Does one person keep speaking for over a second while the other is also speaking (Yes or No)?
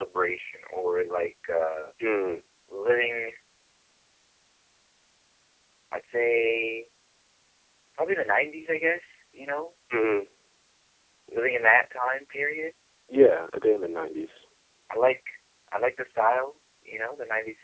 No